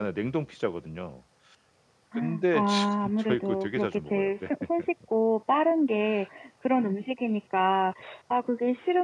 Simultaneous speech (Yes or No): Yes